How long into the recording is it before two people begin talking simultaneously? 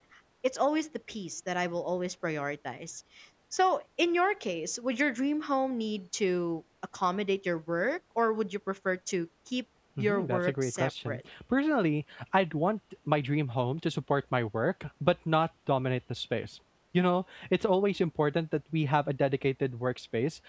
10.0 s

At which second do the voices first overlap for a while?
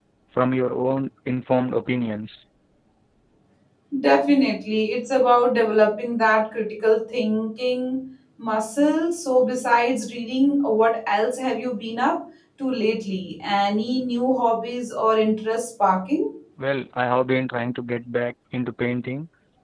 none

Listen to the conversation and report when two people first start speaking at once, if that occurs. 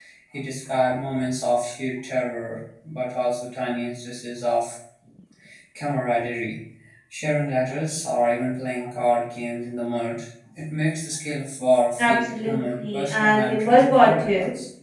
12.0 s

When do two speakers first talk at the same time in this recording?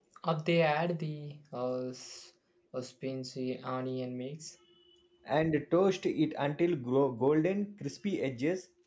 none

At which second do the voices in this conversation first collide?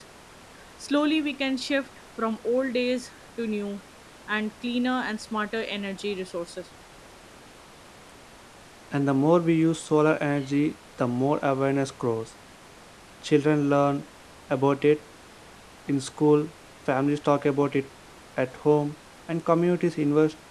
none

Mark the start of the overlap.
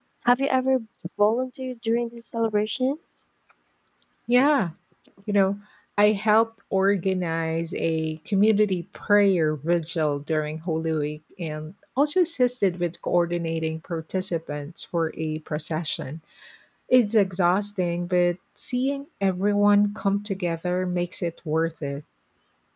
none

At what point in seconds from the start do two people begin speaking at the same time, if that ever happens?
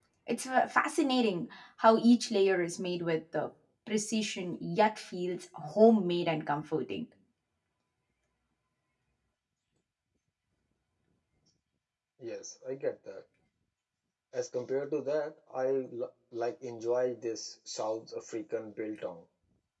none

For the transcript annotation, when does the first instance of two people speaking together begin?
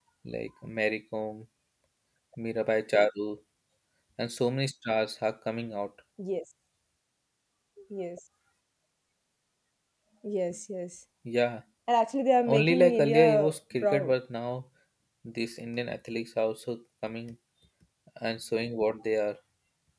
12.4 s

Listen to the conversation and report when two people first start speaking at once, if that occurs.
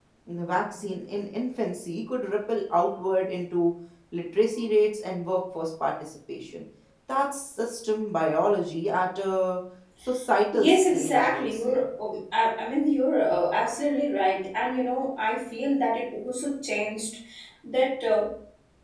10.5 s

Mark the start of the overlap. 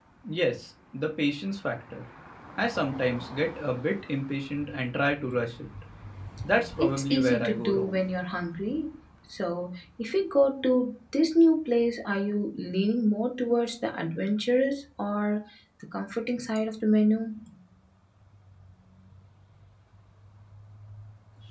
6.8 s

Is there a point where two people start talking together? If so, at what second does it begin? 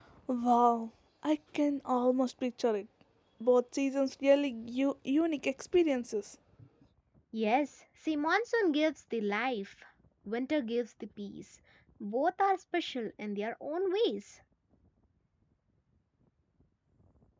none

